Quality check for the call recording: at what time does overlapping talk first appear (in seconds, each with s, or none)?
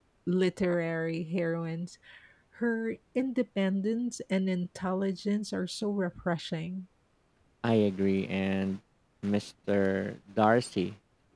none